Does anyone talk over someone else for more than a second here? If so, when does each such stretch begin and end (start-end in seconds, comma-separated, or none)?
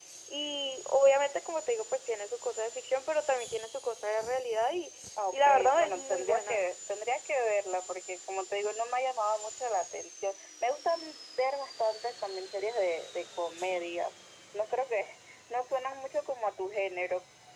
5.3-6.7